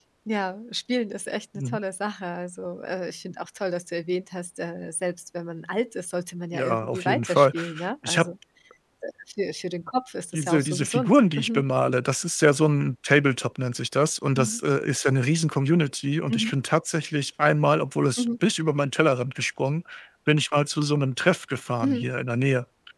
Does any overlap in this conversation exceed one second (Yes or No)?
Yes